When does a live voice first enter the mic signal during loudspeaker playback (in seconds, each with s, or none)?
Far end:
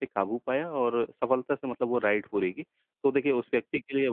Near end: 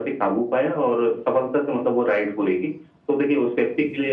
none